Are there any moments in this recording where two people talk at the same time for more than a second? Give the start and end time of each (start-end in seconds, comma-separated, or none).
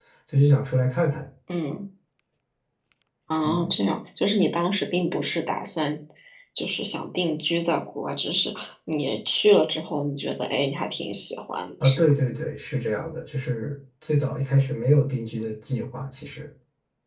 none